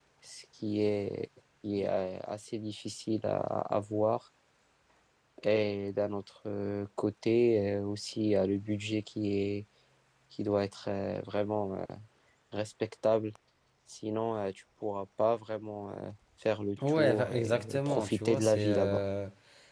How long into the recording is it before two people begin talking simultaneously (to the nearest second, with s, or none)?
17 s